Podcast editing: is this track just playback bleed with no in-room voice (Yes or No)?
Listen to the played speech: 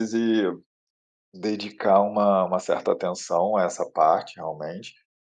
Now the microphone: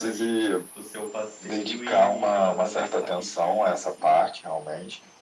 No